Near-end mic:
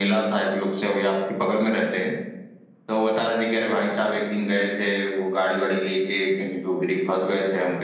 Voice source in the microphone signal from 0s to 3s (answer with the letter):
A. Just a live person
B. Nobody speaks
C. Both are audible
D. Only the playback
D